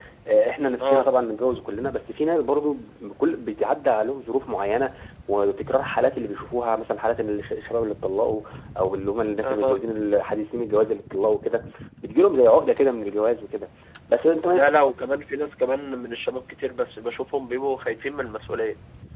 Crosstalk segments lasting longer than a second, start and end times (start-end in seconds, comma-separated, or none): none